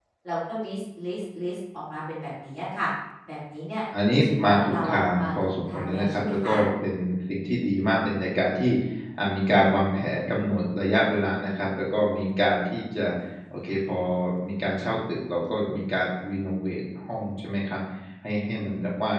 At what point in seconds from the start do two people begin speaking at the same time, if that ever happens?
4.2 s

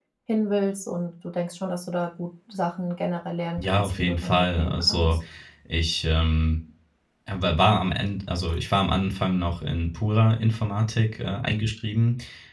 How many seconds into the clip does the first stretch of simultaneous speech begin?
3.6 s

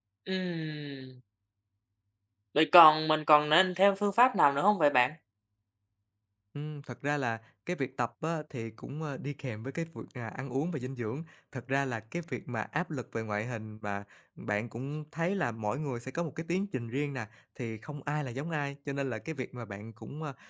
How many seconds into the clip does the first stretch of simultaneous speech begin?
none

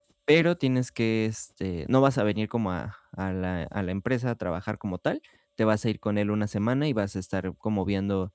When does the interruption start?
none

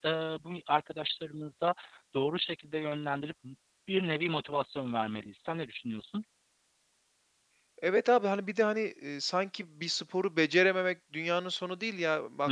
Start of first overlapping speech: none

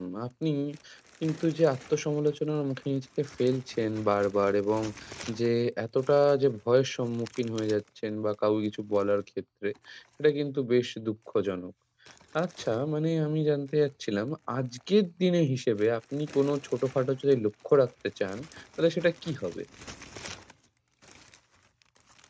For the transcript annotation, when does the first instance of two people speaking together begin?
none

